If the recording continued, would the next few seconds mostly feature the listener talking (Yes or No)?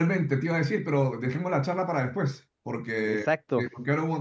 No